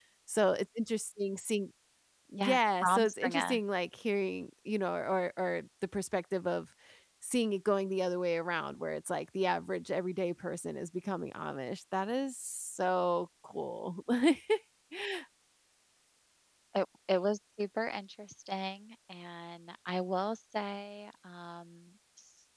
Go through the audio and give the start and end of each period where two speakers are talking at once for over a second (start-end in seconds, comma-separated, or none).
2.4-3.6